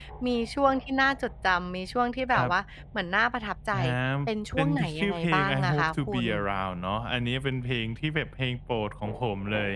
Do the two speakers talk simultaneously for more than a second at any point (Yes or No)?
Yes